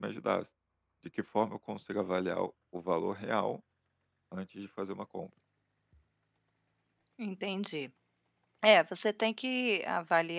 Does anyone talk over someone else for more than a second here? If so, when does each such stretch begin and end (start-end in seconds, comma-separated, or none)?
none